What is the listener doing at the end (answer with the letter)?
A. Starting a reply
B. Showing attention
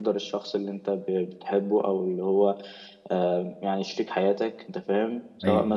B